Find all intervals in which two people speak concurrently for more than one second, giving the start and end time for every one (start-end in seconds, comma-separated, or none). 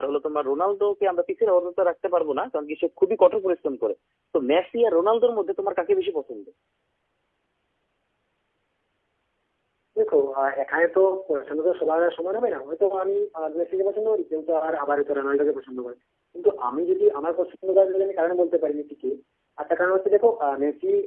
none